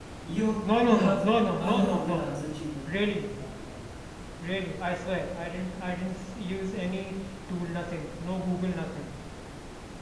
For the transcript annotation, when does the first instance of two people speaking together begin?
0.6 s

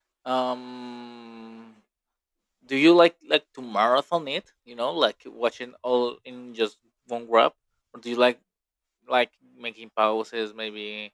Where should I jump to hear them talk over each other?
none

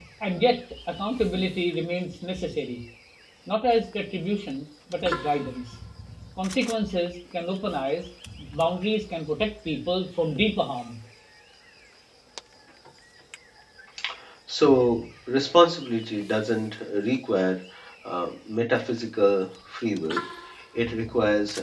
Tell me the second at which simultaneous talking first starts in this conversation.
none

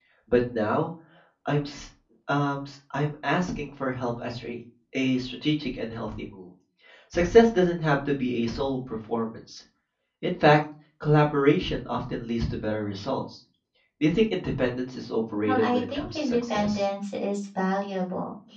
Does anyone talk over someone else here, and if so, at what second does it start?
15.4 s

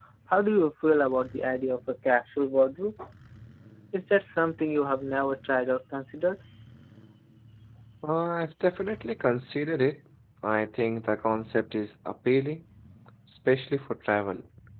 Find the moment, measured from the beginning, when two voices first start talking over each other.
none

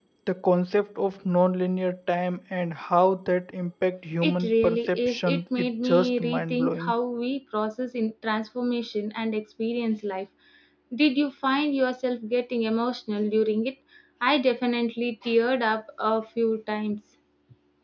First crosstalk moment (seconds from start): 4.2 s

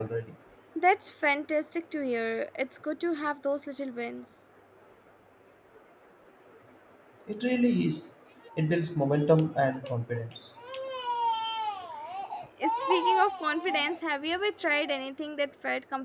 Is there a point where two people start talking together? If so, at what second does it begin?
none

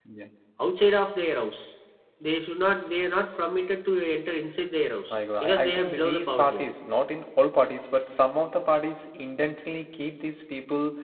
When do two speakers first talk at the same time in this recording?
5.1 s

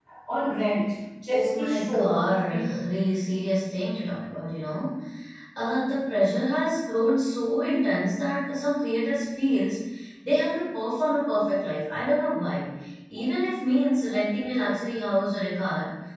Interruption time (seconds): 1.3 s

